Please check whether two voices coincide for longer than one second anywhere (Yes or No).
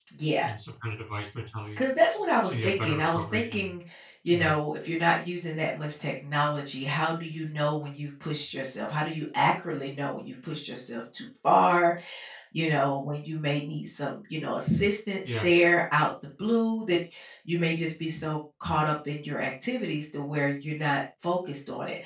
Yes